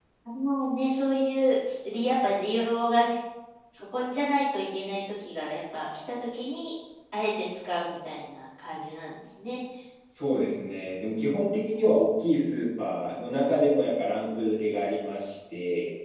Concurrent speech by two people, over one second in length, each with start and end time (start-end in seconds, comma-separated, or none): none